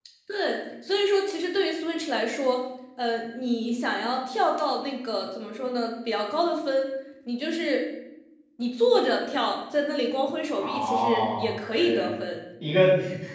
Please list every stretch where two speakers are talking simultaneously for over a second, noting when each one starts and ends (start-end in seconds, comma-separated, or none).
10.6-11.9